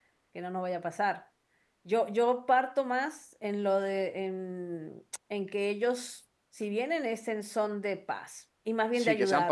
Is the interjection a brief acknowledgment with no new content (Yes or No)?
No